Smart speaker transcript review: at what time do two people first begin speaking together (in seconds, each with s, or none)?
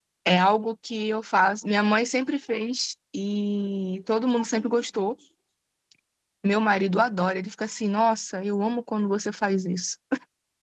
none